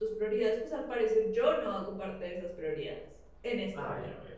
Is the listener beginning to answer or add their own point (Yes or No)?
Yes